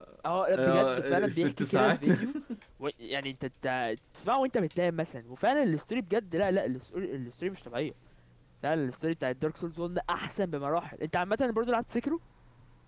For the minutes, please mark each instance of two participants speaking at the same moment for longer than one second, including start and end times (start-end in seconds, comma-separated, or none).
0.5-2.1